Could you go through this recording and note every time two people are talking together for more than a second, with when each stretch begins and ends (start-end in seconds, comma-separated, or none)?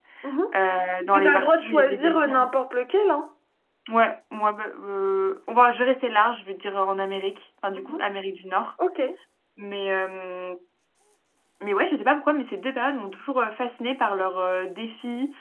1.1-2.5